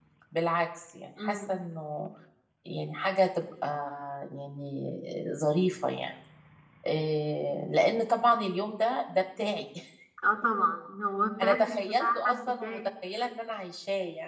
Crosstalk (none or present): present